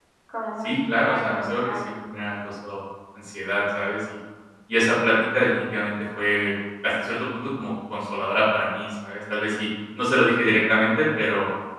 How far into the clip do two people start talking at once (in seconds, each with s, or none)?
0.6 s